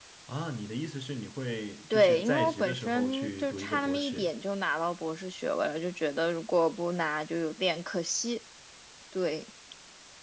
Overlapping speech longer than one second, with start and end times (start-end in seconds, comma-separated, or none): 1.9-4.3